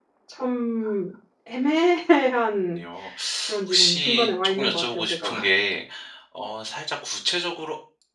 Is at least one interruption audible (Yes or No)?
Yes